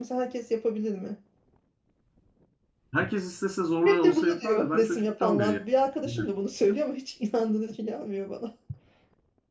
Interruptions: present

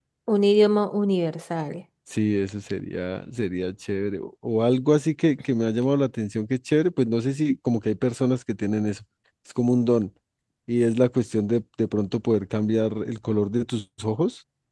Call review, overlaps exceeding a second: none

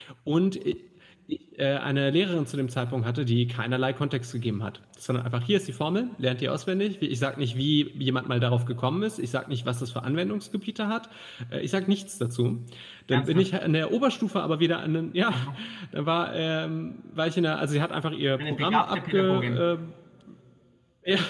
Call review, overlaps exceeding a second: present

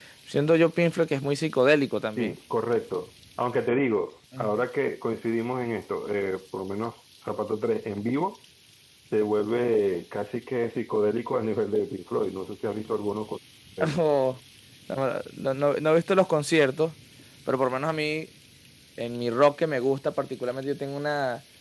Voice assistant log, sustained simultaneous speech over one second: none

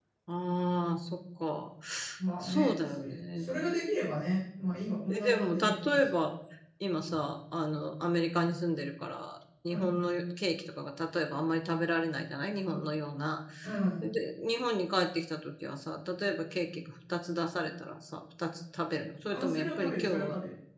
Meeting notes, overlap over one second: present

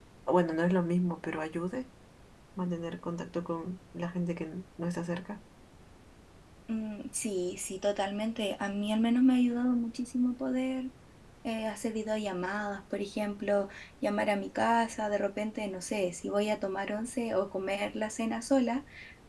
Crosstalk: none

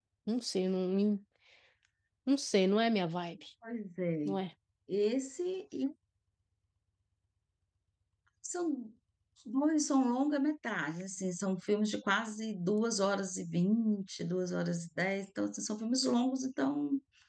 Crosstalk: none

